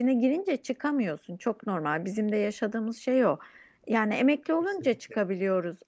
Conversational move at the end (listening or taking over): listening